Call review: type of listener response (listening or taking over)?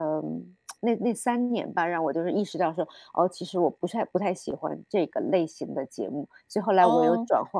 taking over